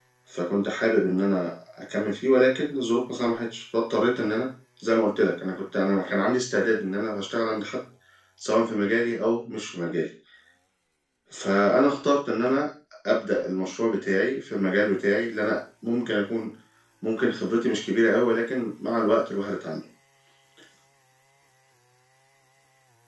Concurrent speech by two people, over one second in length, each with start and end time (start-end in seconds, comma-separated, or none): none